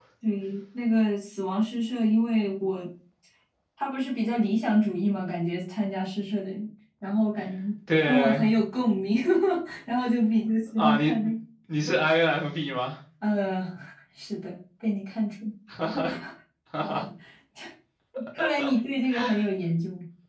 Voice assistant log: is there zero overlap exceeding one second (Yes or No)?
Yes